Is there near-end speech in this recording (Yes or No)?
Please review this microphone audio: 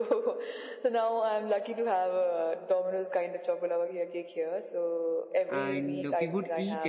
Yes